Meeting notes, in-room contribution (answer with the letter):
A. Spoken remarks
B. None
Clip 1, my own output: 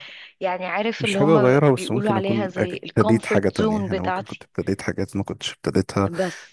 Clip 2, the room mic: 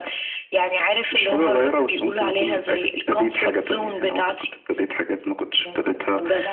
A